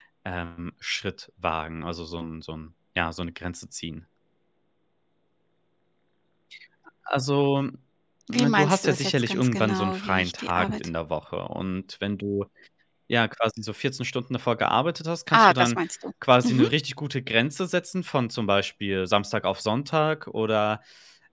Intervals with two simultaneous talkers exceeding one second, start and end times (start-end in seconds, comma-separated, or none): 8.3-10.9